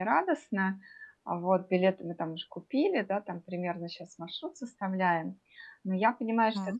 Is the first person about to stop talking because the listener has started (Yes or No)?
No